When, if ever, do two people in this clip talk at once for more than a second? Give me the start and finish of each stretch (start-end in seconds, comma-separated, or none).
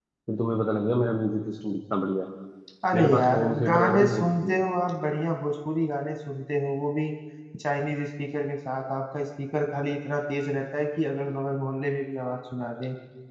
2.9-4.7